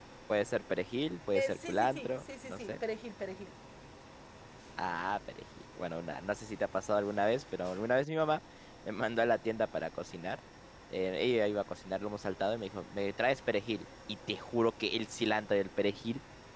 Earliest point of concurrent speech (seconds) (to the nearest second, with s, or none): 1 s